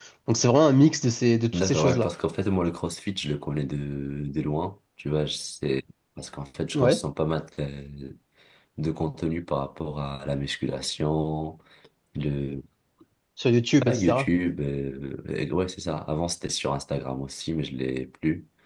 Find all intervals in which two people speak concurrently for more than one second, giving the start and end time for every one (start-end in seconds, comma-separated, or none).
none